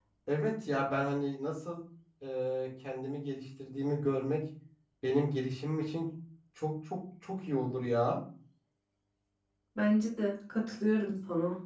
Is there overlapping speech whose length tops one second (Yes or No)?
No